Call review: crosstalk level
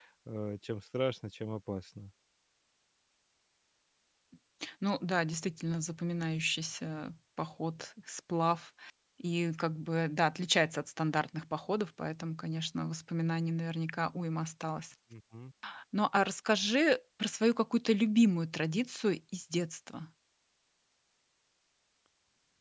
none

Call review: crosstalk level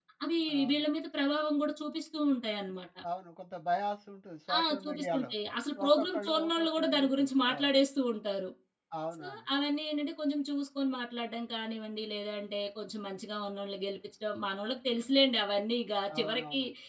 present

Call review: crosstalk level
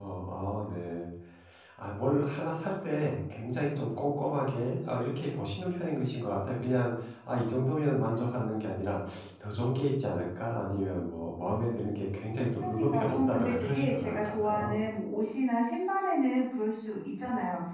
present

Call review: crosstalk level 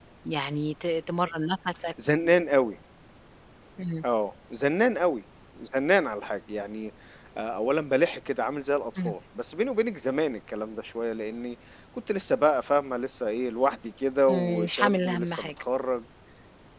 present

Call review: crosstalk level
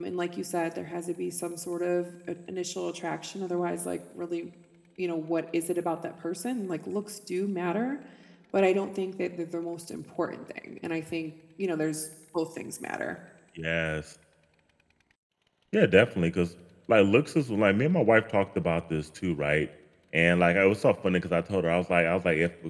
none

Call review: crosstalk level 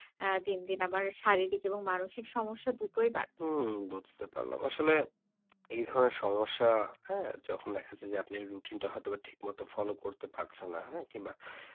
none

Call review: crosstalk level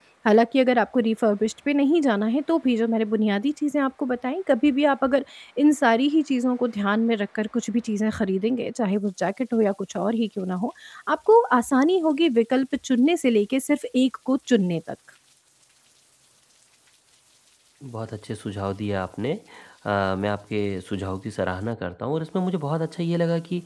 none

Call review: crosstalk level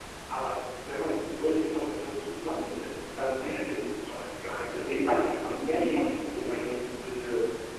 present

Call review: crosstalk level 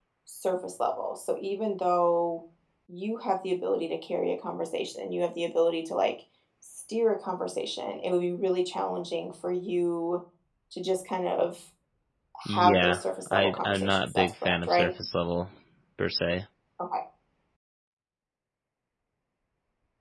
present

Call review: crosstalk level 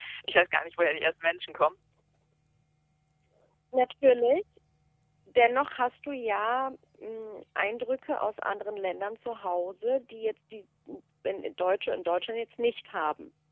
none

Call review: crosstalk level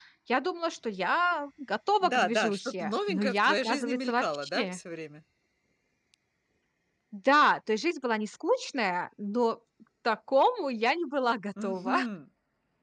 present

